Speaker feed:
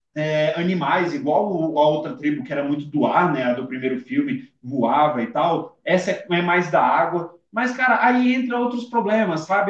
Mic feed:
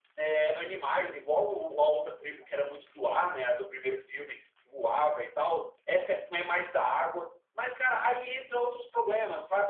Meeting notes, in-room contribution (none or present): none